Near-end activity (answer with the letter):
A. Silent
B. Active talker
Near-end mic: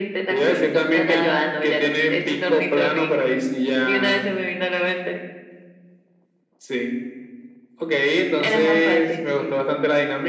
B